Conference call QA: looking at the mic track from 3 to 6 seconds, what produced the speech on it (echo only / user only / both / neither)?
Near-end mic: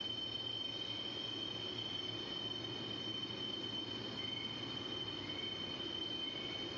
neither